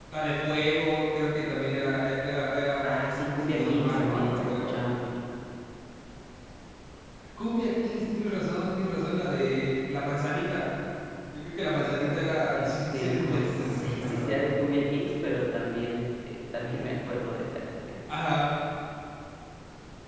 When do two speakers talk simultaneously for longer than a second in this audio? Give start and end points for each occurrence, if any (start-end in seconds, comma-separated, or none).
2.8-4.7, 12.5-14.3